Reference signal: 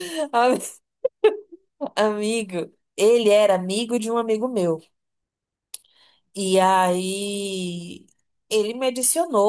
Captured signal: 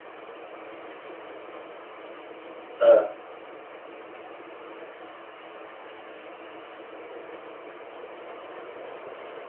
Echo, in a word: none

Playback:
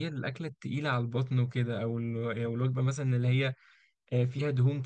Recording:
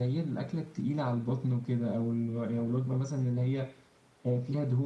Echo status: present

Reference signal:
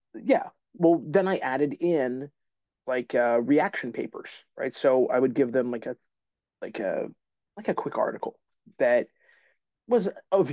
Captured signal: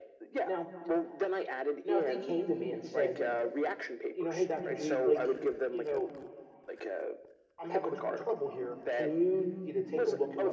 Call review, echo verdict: present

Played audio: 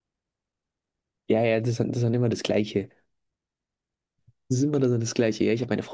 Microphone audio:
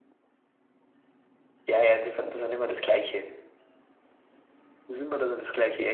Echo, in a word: present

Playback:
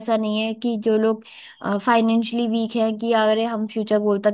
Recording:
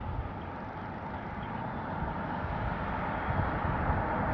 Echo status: none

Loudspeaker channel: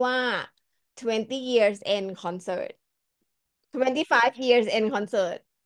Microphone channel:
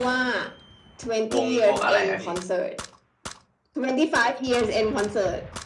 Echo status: present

